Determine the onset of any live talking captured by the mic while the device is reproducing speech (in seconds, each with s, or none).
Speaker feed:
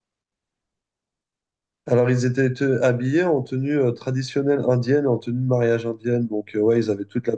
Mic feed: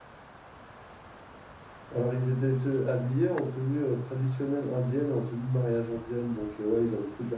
none